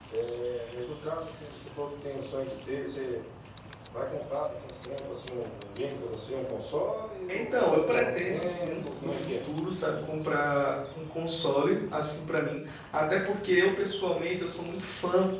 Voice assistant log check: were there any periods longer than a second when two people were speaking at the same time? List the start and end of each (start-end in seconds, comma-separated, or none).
7.3-9.3